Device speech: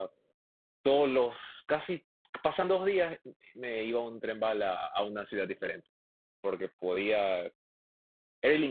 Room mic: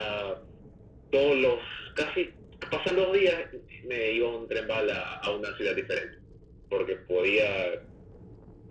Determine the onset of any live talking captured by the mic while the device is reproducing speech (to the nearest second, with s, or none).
none